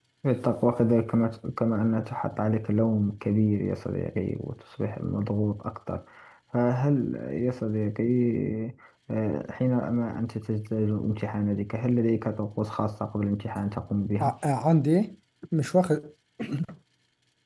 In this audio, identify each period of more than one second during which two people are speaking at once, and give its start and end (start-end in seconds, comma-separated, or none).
none